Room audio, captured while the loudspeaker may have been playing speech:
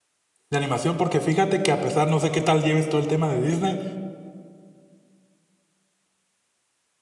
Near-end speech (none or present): present